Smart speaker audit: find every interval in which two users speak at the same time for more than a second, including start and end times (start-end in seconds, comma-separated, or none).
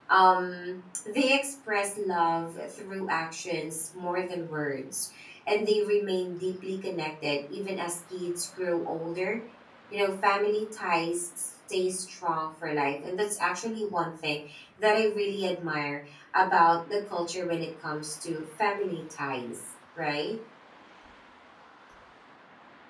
none